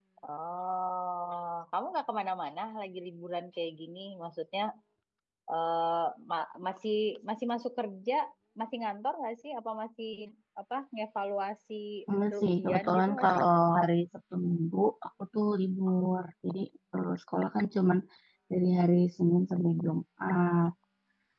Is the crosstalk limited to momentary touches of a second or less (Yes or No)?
No